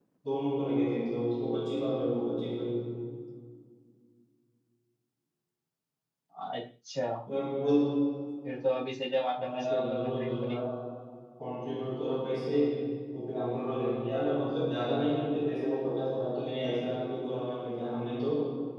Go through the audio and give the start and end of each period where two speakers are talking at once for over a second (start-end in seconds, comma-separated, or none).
9.4-10.6